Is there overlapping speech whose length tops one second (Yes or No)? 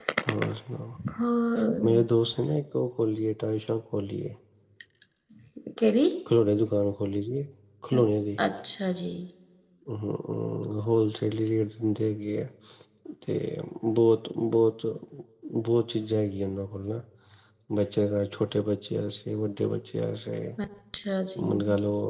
No